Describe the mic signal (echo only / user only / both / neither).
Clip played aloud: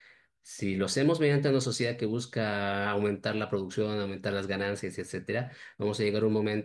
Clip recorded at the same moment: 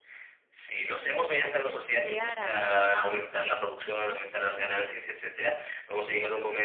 both